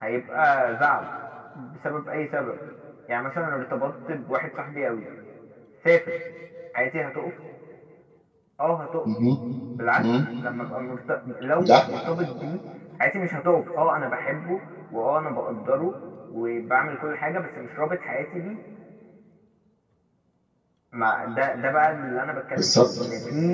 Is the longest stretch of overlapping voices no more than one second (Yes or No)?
Yes